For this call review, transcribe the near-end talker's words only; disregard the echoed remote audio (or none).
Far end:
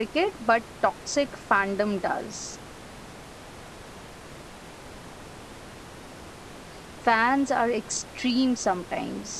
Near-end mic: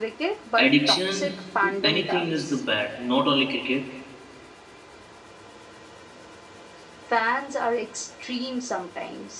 addiction to anything is the bad not only cricket